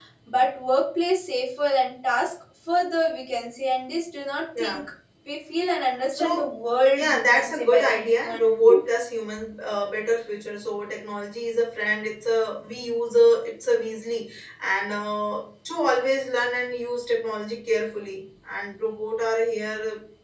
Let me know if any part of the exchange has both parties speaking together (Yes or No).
Yes